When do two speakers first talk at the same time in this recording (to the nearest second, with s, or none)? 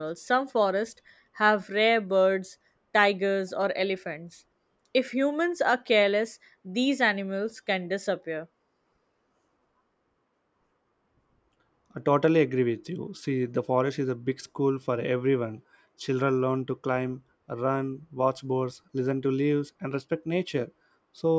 none